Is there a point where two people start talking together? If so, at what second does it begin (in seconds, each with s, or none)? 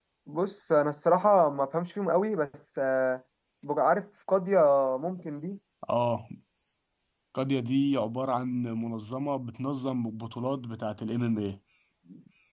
none